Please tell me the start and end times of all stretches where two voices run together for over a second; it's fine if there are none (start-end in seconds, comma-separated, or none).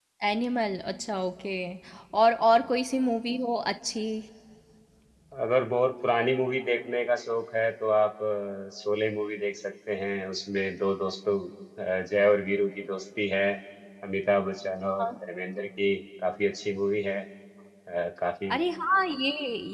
none